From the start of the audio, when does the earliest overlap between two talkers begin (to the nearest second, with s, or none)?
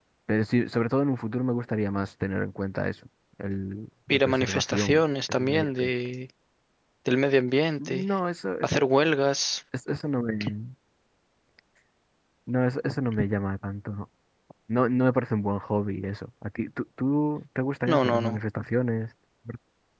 4 s